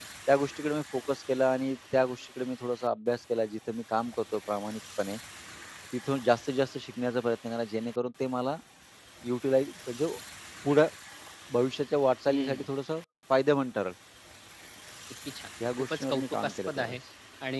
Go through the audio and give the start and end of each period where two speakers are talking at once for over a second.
15.8-17.0

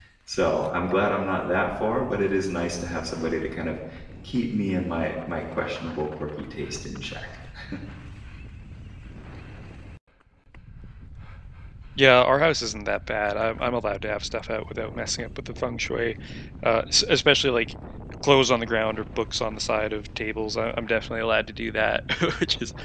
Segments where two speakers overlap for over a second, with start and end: none

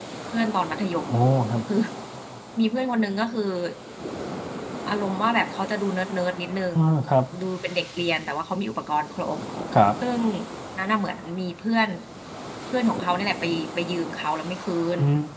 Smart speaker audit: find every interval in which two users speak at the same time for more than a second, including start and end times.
none

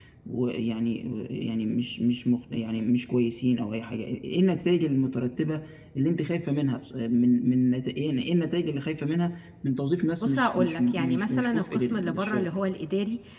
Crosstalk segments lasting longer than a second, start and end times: 10.2-12.5

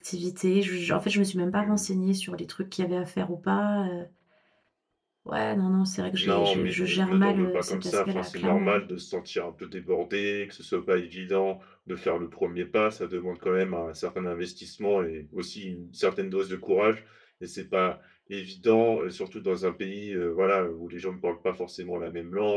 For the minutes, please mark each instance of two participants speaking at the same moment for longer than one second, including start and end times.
6.2-8.8

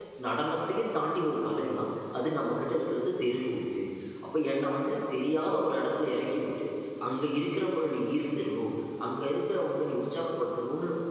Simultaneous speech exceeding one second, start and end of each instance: none

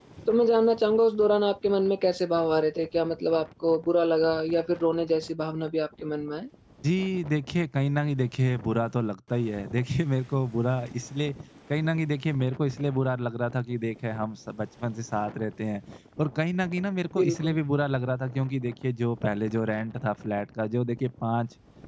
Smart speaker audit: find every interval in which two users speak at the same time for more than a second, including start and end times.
none

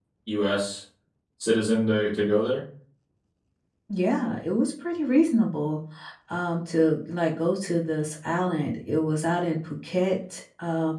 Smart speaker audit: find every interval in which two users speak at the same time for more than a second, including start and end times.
none

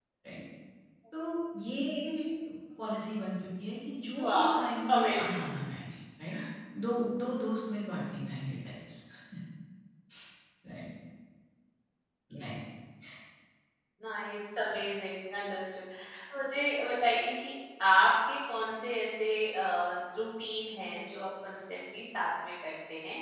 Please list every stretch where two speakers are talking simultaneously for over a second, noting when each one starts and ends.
4.1-5.4

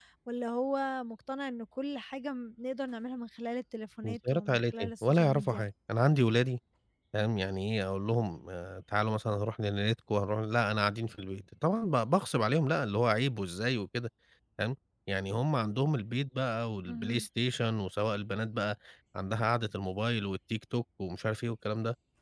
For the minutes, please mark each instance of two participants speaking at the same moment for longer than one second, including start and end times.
4.0-5.6

